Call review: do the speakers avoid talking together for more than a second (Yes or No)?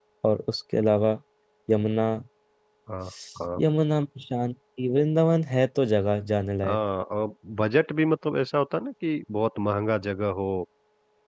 Yes